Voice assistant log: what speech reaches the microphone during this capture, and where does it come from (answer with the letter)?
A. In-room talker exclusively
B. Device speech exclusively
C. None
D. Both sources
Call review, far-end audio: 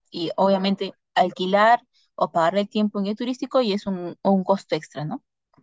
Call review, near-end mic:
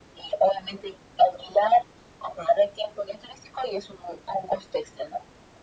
B